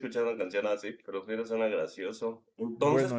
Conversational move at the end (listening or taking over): listening